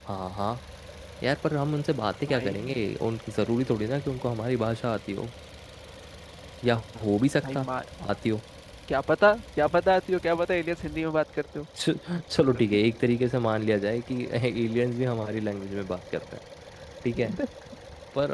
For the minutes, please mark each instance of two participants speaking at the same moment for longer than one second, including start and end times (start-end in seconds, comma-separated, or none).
none